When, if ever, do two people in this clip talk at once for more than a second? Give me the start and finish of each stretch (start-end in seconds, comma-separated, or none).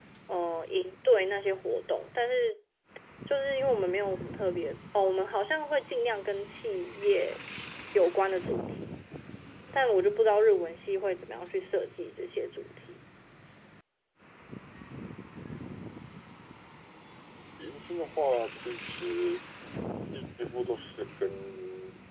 none